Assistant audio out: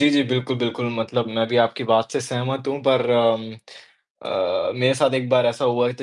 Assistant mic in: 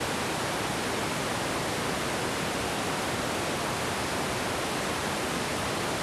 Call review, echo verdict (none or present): none